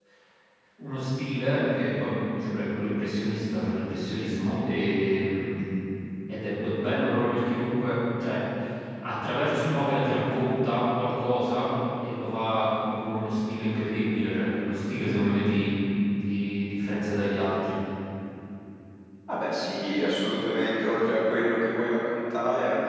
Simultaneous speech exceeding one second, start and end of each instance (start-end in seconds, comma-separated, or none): none